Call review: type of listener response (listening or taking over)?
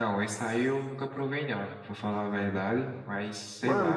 taking over